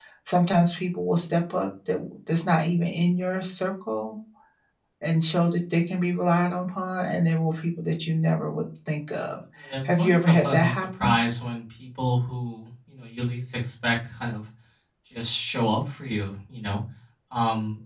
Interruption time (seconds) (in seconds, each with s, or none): 9.8 s